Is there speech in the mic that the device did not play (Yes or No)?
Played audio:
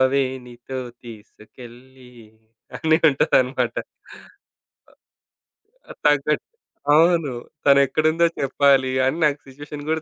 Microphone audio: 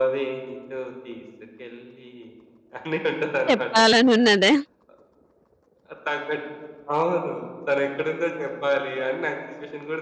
Yes